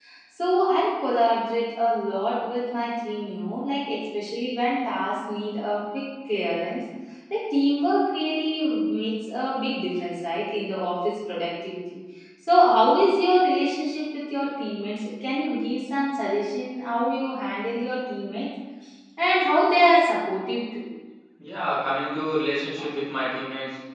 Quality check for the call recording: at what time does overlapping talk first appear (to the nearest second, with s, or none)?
none